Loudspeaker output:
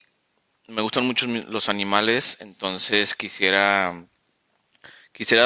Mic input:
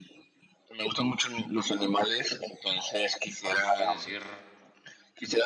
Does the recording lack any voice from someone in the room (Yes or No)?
No